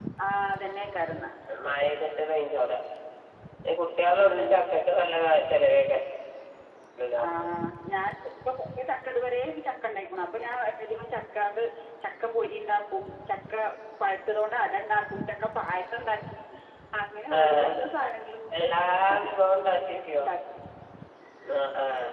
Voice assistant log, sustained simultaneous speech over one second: none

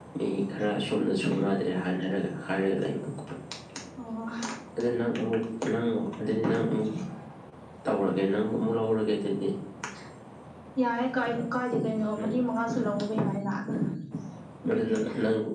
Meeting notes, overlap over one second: none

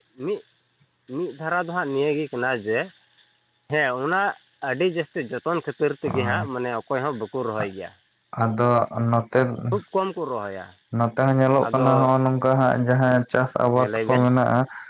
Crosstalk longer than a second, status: none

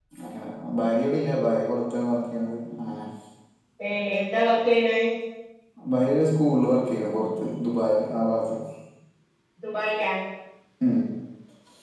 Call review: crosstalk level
none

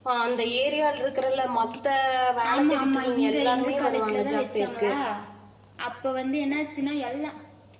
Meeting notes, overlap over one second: present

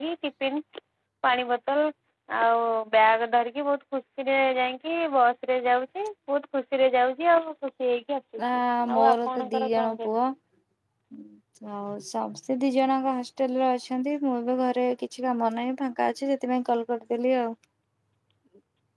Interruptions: present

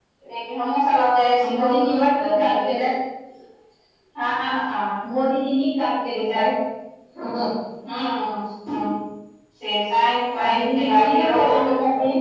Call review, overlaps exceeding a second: present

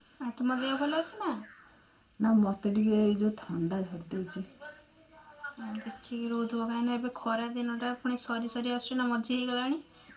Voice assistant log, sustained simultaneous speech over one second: none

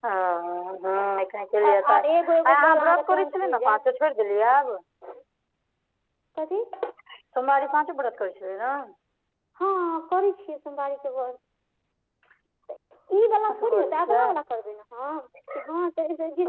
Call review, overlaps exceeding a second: present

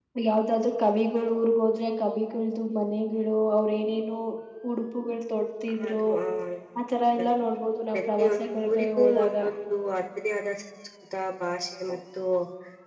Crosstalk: present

